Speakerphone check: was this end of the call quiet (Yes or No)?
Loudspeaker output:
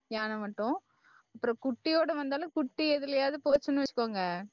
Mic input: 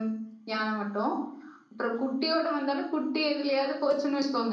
Yes